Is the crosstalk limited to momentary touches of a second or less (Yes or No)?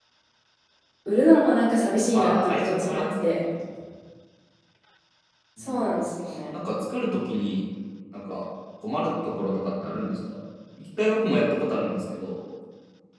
No